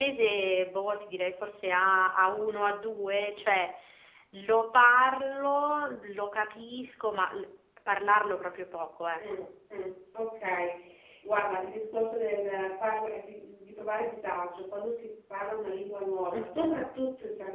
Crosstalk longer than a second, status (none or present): none